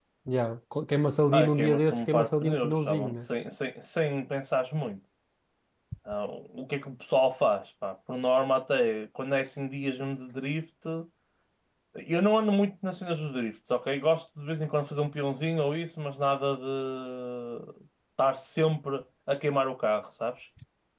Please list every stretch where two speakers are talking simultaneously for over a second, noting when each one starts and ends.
1.3-3.1

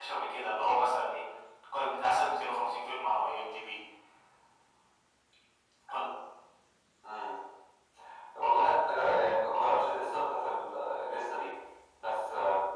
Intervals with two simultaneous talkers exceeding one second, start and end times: none

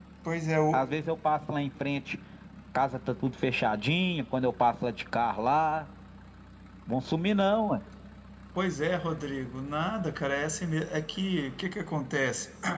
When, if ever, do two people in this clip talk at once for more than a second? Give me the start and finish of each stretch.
none

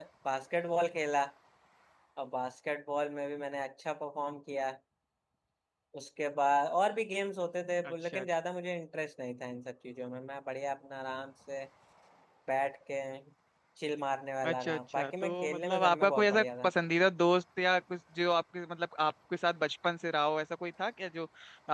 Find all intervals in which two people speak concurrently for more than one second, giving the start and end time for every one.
14.5-16.7

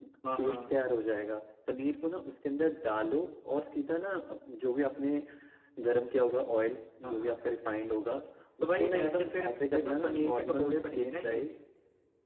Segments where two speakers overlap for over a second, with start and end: 8.6-11.4

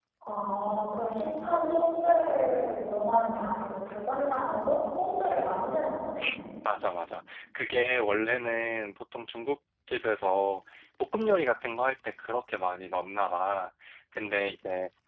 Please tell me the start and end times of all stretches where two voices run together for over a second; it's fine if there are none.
none

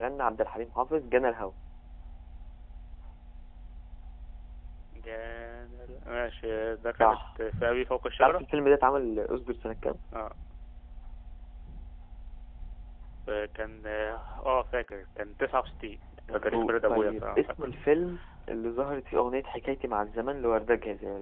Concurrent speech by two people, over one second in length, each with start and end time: 16.3-17.7

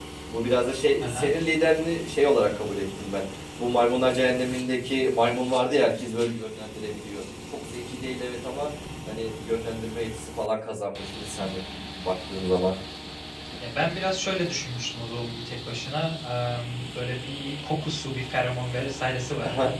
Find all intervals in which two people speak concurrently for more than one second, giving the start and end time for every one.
none

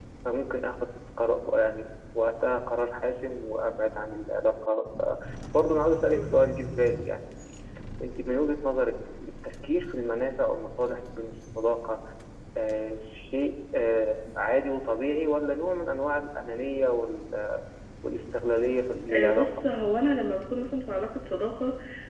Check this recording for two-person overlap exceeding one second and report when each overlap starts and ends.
none

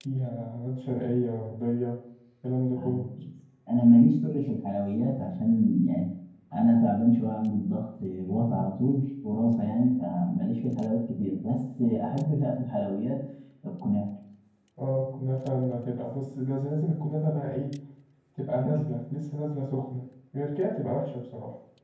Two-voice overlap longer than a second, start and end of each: none

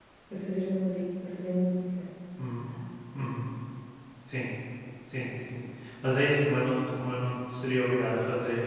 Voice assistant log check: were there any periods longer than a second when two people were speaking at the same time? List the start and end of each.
none

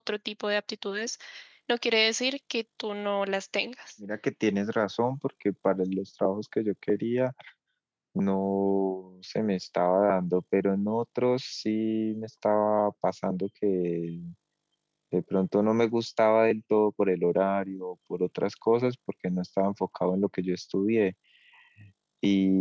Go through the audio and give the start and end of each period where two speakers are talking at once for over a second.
none

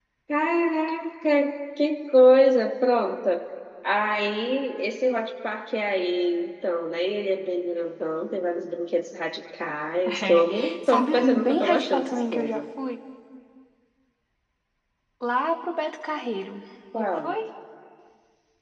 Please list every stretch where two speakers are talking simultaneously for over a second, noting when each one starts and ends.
10.1-12.6

